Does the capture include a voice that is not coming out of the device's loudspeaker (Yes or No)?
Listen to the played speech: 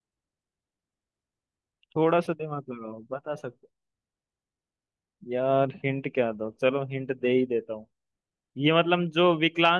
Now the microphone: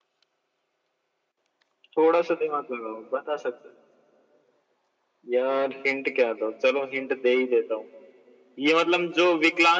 No